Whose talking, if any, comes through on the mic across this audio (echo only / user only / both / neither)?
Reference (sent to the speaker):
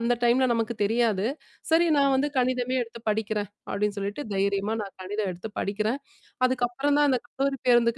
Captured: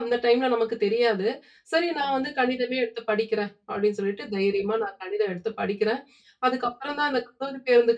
echo only